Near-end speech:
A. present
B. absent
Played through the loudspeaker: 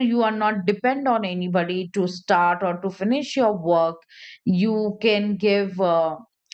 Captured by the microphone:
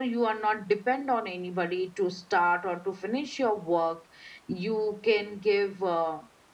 B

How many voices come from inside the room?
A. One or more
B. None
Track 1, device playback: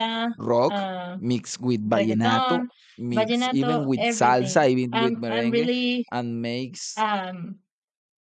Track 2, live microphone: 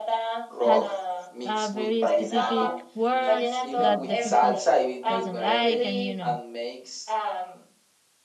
A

